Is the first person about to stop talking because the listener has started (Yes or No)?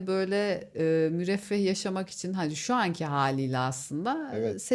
No